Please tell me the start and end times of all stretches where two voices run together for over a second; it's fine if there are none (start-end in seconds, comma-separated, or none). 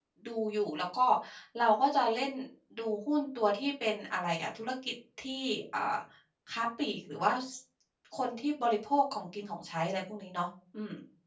none